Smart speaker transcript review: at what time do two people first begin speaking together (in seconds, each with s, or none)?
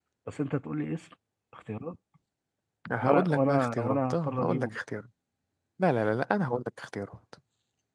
3.0 s